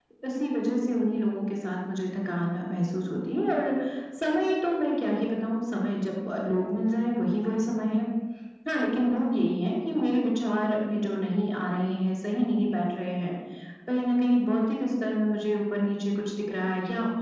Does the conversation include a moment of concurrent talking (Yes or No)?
No